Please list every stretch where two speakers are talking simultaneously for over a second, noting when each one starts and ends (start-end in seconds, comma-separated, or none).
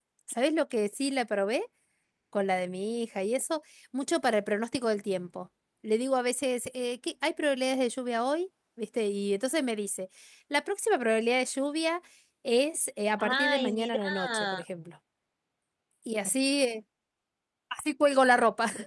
13.2-14.6